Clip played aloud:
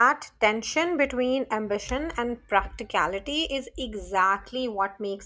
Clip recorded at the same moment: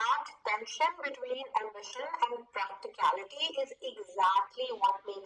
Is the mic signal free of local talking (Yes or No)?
Yes